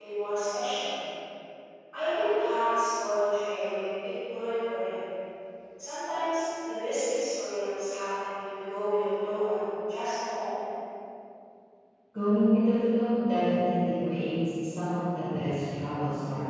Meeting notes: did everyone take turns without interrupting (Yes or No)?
Yes